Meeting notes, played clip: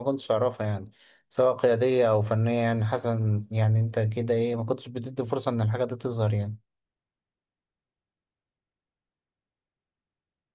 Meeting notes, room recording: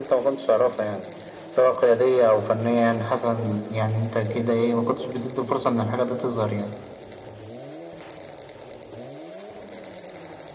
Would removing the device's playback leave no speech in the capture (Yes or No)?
Yes